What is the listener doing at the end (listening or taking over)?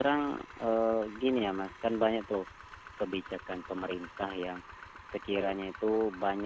listening